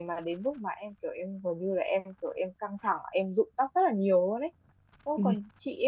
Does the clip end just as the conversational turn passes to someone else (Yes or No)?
No